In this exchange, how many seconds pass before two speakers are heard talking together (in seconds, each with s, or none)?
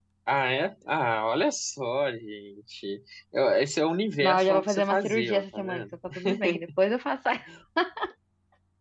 4.2 s